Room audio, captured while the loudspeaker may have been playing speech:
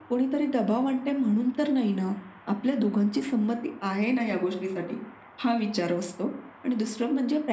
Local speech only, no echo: none

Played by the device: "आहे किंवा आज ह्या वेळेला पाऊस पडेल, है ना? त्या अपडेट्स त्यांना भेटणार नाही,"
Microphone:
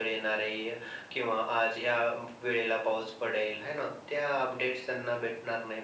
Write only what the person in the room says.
none

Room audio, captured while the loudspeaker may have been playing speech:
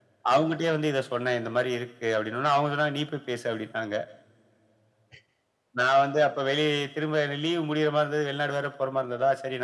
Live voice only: none

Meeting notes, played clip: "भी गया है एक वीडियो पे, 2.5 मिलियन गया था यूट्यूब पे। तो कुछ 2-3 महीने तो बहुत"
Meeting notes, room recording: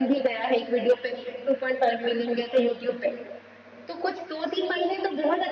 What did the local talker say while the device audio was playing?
none

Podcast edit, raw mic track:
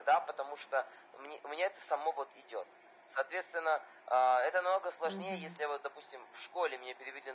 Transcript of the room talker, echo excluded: Мгм.

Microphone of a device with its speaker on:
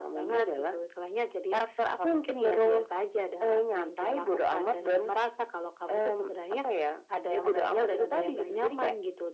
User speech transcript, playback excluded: none

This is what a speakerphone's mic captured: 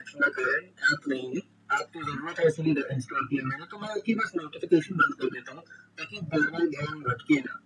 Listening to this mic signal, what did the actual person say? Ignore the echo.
none

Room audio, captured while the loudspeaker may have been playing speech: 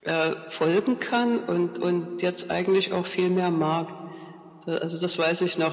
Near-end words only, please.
none

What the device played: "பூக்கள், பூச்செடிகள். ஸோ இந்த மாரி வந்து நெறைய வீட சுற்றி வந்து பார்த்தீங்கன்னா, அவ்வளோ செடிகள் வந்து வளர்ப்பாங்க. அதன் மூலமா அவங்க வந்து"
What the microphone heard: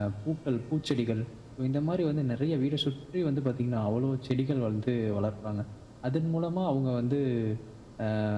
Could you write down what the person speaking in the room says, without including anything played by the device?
none

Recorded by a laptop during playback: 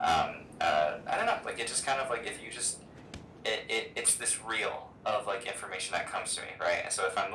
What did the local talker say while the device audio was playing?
none

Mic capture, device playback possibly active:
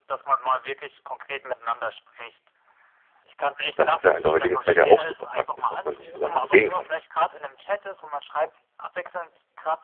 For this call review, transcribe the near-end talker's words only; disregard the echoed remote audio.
Das ist ja in der heutigen Zeit ja auch super praktisch, dass man sich sogar noch sehen kann.

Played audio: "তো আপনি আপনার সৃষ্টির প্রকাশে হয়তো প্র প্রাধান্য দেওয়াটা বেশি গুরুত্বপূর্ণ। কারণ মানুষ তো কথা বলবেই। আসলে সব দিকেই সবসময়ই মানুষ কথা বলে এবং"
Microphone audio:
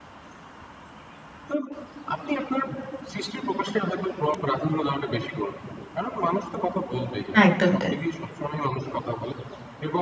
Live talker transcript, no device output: একদমই তাই।

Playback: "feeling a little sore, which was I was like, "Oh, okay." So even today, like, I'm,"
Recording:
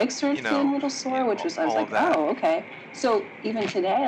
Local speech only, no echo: you know, you know all all of that

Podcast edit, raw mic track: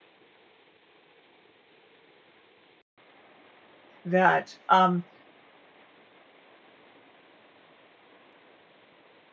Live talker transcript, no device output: that, um,

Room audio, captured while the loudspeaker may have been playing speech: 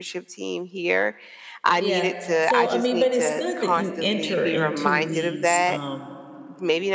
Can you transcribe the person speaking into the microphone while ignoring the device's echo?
Yeah. So, I mean, but it's good that you enter into these, um

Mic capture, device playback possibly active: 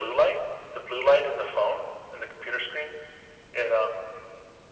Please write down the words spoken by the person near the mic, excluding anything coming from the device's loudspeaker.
none

